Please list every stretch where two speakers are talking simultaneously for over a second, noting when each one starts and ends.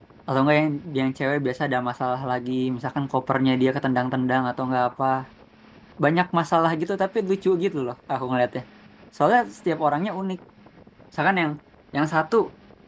none

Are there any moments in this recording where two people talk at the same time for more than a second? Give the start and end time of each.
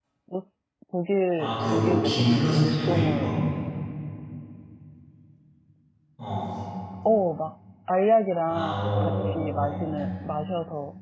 1.4-3.3, 8.4-9.8

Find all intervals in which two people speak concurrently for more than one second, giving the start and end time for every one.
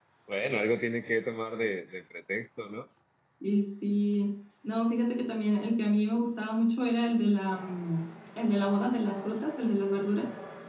none

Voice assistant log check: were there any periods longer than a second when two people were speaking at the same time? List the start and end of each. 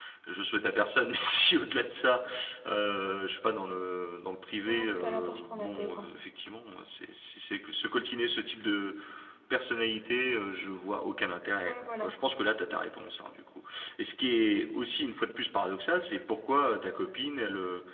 4.6-6.1

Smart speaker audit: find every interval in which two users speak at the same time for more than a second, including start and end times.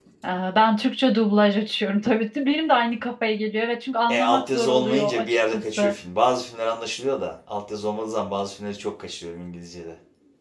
4.1-5.9

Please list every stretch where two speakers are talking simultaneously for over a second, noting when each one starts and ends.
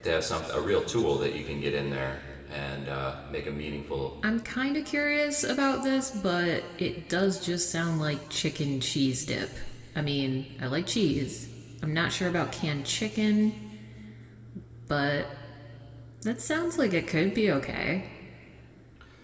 none

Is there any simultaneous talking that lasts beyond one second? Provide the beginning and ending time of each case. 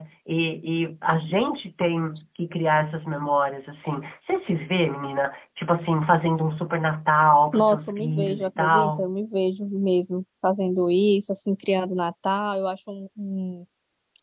7.5-9.1

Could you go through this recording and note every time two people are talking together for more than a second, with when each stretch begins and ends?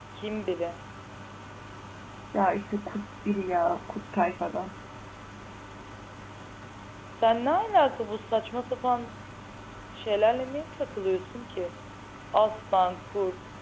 none

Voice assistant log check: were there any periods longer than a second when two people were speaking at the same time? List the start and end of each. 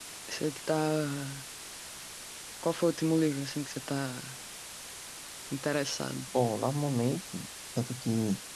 none

